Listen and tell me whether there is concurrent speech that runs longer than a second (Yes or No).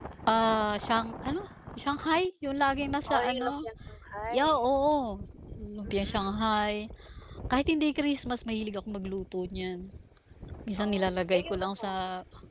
Yes